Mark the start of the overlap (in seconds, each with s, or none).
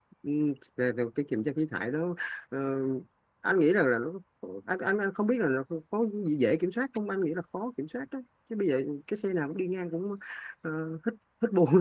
none